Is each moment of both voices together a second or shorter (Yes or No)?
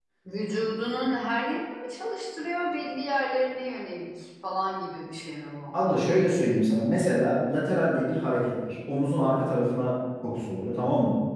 Yes